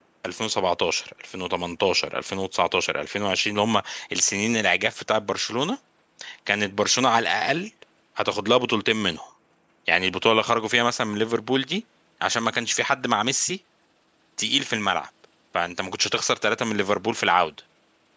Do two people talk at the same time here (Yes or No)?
No